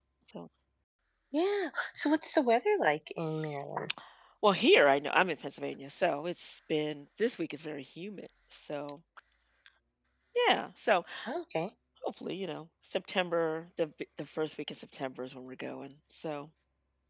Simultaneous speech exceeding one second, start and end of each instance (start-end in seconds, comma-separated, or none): none